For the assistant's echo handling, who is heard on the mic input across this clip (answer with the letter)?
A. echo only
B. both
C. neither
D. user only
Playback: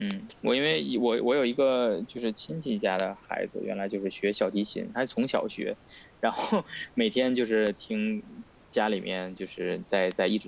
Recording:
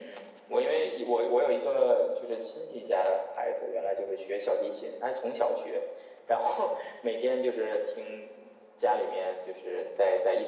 A